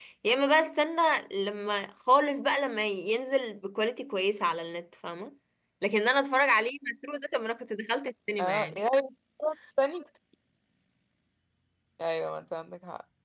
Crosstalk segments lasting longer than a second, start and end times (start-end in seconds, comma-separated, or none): none